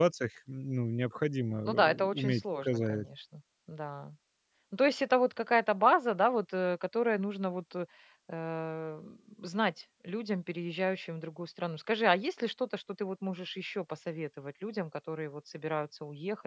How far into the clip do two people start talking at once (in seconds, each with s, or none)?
1.7 s